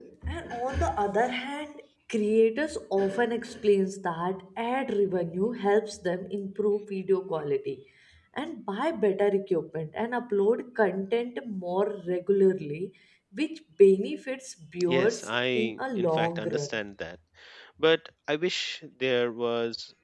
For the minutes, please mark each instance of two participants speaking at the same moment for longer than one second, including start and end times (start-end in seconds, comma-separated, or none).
14.9-16.7